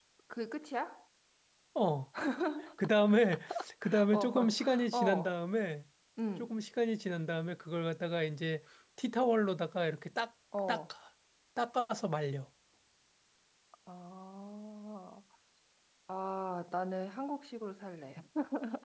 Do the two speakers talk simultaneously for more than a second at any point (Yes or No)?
Yes